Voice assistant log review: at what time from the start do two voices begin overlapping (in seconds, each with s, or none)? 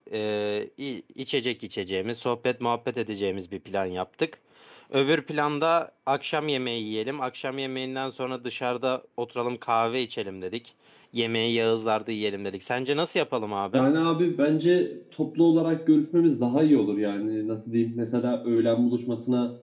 none